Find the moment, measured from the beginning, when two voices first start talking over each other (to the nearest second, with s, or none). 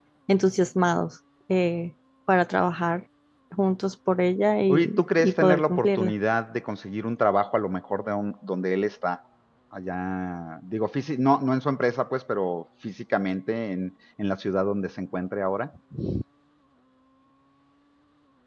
5 s